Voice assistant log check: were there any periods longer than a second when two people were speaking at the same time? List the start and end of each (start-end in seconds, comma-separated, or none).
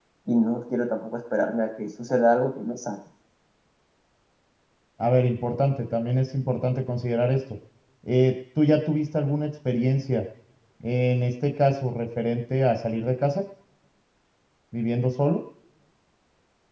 none